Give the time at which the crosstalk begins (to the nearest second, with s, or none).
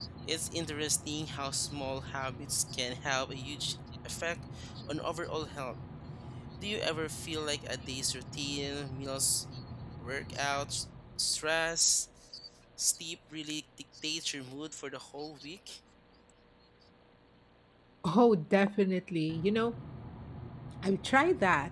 none